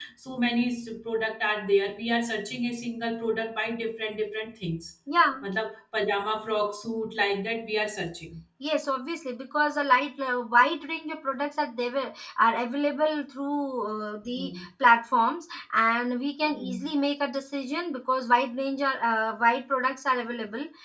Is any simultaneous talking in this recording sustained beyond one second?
No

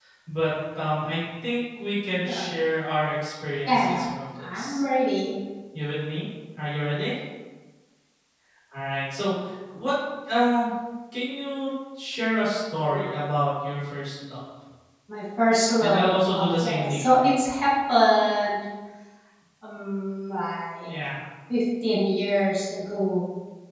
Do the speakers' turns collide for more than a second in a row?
Yes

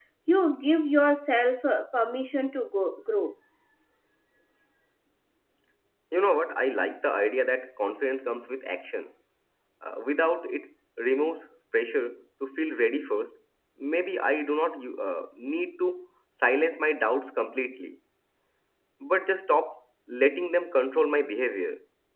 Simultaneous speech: No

